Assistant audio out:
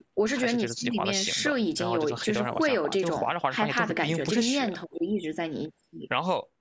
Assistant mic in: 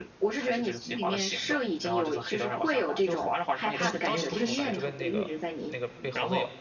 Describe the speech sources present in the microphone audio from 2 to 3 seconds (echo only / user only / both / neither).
echo only